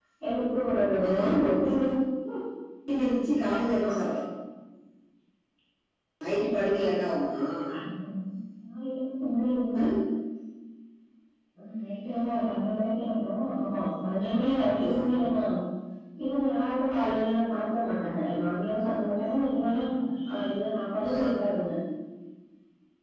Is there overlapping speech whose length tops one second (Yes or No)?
No